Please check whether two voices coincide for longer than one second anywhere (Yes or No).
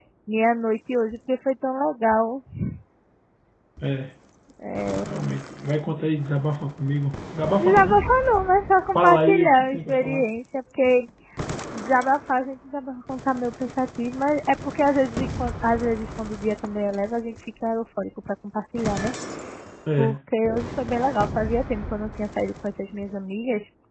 Yes